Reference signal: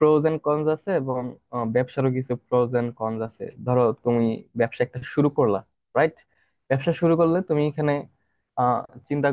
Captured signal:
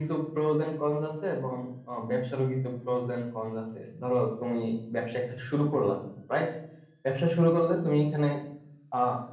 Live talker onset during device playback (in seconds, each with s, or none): none